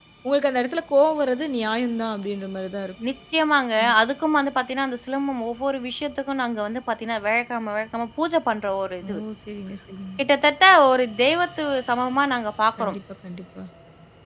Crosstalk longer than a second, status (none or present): none